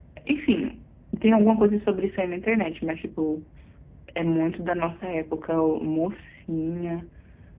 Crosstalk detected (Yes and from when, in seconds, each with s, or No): No